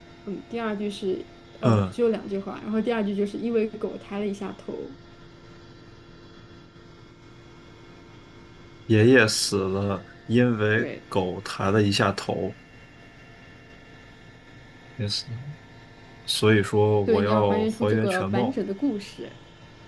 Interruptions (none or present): present